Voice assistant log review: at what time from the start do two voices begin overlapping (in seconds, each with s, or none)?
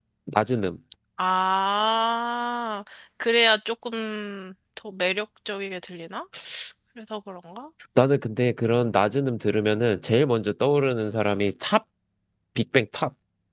none